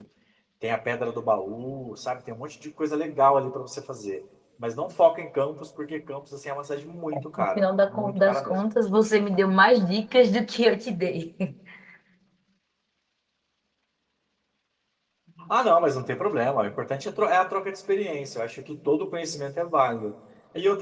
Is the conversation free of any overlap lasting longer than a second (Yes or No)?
No